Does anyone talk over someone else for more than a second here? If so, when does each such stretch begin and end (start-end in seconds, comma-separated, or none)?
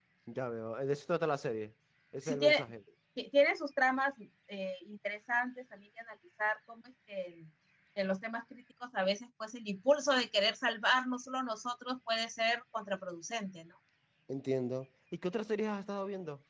none